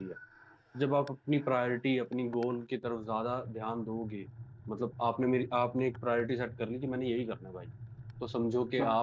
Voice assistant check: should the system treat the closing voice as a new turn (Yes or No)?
No